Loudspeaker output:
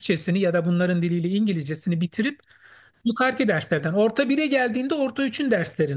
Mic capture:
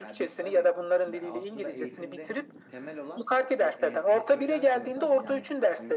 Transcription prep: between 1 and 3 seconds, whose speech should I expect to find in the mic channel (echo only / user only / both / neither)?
both